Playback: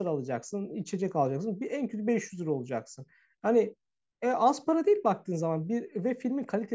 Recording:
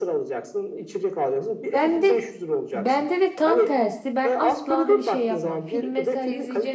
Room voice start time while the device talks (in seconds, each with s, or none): 1.7 s